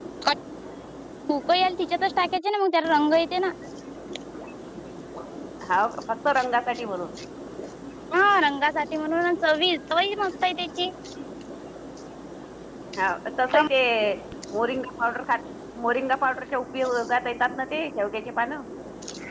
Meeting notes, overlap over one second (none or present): none